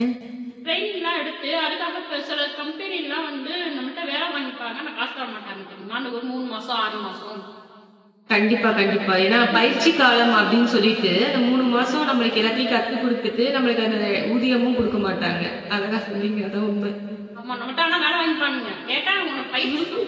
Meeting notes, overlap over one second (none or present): none